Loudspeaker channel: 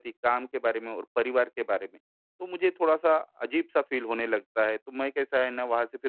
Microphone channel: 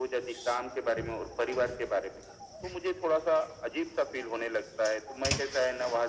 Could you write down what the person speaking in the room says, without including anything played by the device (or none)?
none